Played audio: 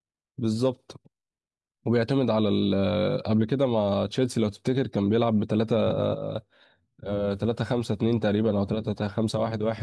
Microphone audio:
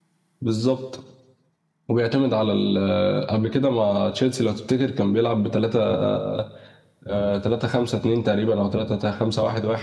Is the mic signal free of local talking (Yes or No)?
Yes